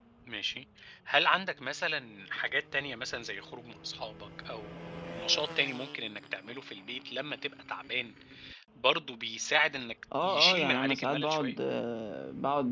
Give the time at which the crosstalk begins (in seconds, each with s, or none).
10.1 s